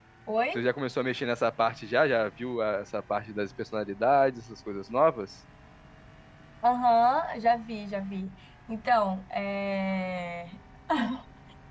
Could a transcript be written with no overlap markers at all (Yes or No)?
Yes